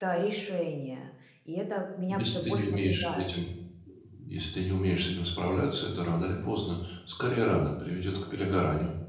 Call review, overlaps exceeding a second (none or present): present